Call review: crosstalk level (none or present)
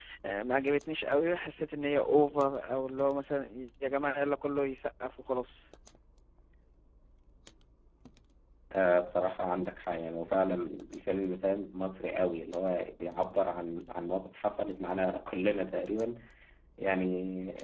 none